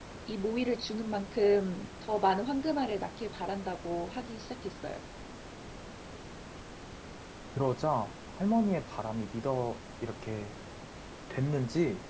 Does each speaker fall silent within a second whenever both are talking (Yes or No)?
Yes